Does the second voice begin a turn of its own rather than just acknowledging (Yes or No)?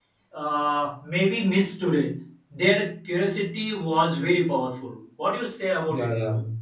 Yes